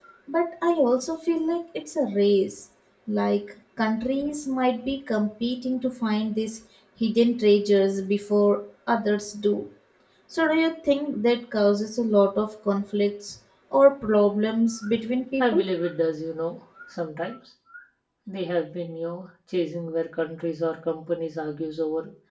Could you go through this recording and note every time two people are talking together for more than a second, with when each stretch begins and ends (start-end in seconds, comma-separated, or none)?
none